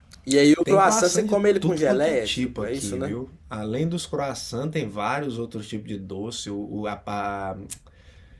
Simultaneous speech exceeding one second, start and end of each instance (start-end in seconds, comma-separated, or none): 0.7-3.1